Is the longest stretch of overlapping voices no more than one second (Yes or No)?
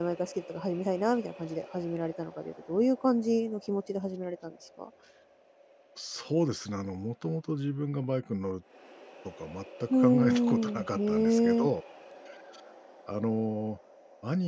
No